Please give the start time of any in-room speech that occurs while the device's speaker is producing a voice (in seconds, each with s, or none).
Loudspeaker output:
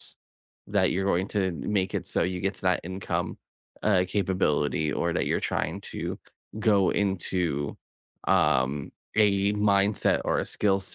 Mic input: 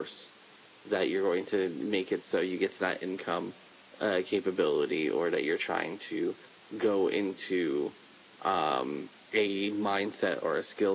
none